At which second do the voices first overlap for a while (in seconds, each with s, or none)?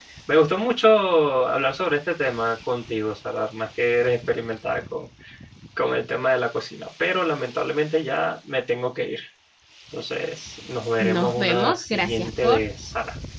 11.0 s